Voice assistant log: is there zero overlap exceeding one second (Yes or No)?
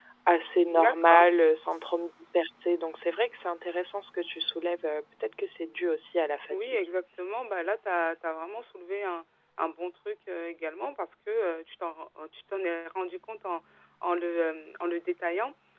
Yes